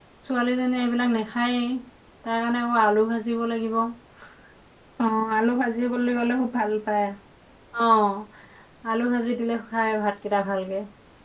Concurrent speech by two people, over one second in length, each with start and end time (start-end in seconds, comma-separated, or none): none